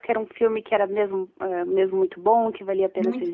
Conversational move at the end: listening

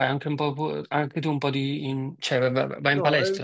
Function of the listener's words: taking over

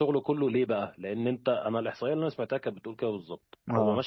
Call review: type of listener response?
listening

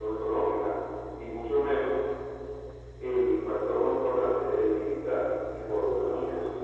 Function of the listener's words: listening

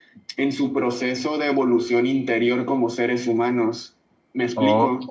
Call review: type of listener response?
taking over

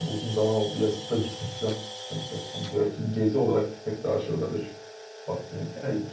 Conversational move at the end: taking over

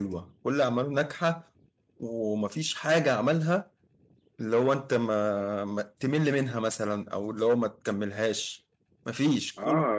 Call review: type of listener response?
taking over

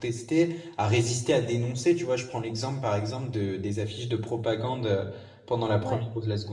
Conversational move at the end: listening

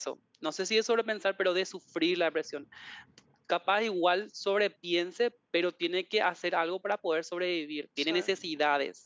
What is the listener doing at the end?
listening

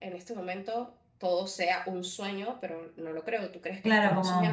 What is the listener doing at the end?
taking over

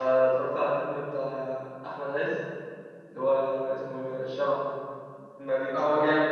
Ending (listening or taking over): taking over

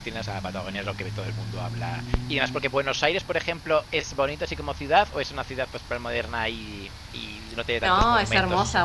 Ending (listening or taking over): taking over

